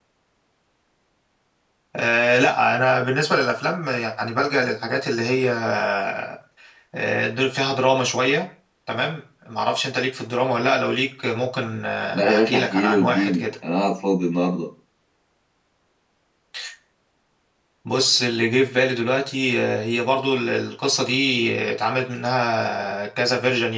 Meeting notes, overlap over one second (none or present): present